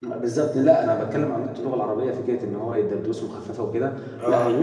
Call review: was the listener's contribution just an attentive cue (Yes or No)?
Yes